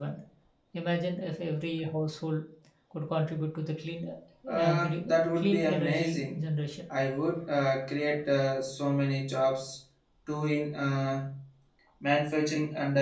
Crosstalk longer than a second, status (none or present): present